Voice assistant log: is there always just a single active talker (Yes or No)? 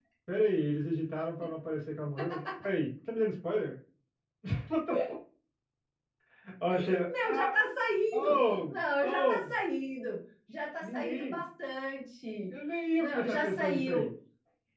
No